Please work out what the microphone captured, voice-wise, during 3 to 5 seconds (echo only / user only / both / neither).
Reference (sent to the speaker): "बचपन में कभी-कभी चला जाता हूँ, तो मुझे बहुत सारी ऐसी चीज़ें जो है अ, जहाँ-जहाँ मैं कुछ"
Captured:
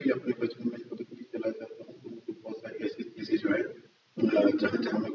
echo only